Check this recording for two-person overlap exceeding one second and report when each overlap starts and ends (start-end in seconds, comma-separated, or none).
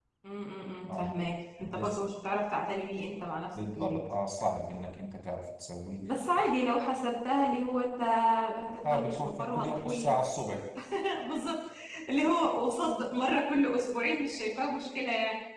8.8-10.1